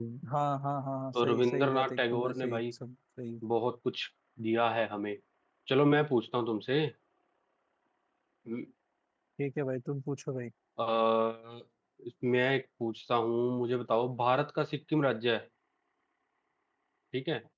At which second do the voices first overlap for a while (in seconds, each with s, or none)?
1.1 s